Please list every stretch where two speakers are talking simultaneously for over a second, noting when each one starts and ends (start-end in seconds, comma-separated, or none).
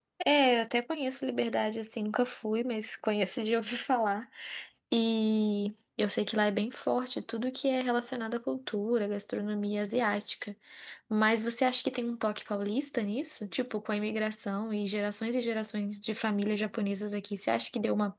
none